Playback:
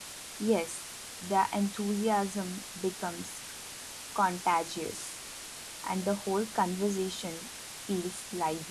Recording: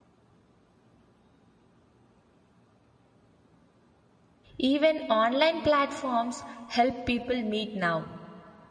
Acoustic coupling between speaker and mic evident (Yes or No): No